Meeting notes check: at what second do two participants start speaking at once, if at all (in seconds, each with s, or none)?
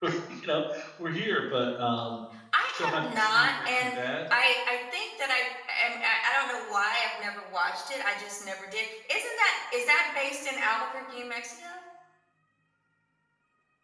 2.7 s